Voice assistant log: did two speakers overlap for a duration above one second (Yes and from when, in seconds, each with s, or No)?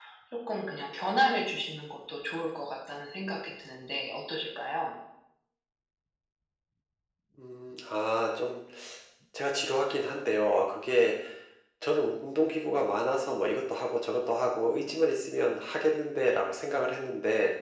No